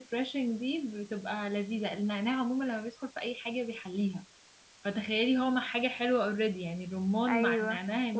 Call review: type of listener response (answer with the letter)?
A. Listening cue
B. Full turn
B